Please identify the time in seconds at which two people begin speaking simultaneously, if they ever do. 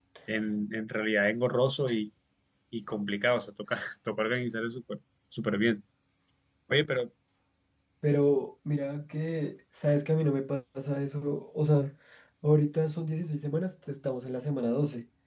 none

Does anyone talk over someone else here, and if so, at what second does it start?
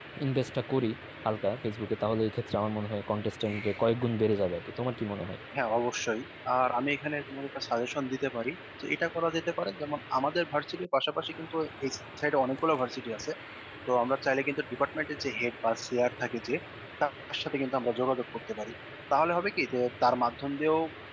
none

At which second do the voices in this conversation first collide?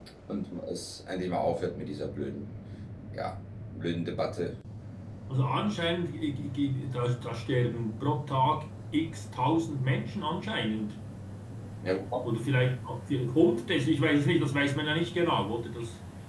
none

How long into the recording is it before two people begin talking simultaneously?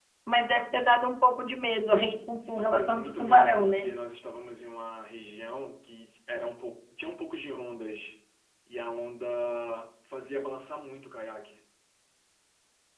2.4 s

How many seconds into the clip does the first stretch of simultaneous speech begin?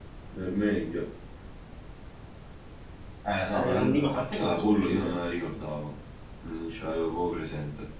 3.5 s

